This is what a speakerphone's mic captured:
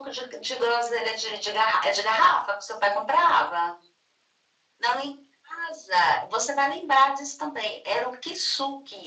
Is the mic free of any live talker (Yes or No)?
Yes